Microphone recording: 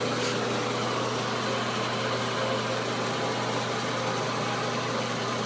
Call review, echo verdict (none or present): none